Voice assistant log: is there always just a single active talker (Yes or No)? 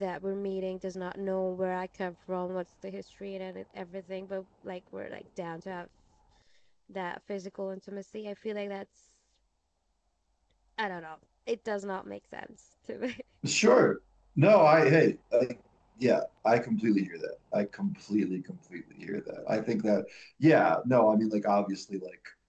Yes